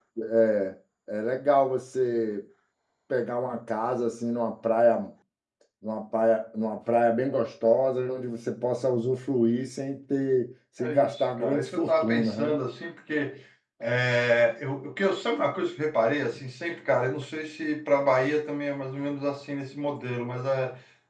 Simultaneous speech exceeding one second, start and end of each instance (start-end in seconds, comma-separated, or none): 10.8-12.6